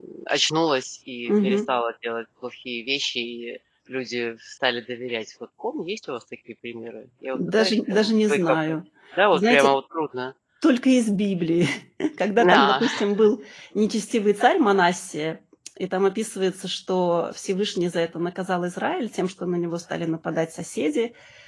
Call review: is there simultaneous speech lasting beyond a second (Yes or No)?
Yes